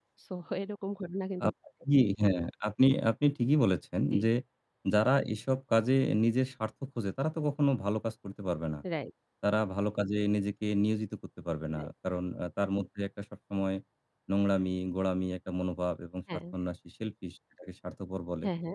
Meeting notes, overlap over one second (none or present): none